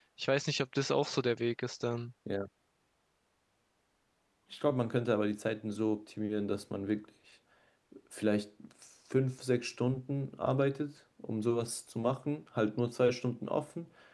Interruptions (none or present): none